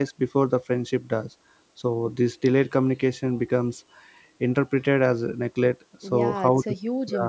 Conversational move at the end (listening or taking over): taking over